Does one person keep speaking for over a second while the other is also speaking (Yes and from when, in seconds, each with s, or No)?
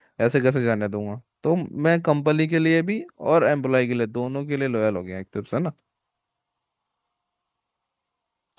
No